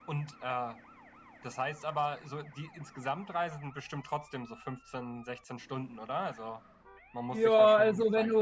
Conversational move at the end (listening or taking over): taking over